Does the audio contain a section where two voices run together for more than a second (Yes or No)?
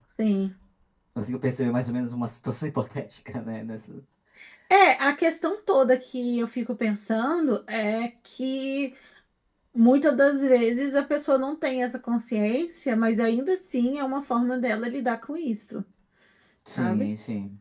No